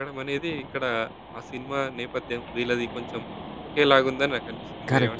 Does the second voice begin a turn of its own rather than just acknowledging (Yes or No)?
Yes